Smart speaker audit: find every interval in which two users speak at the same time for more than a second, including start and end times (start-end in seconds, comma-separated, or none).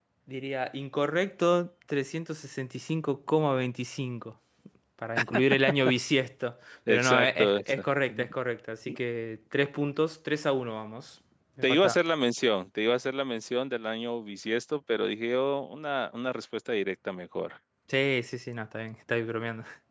6.9-8.3